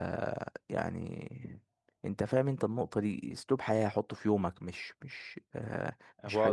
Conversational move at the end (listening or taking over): taking over